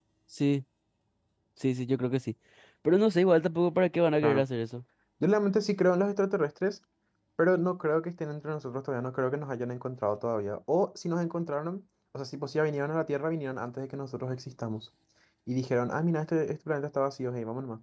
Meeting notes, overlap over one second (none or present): none